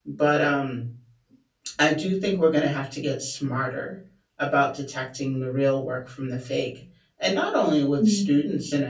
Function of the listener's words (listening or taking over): listening